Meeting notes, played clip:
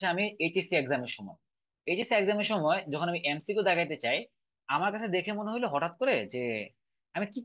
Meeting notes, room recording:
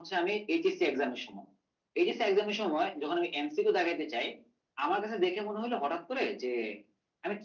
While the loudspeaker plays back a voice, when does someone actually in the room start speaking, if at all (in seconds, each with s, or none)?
none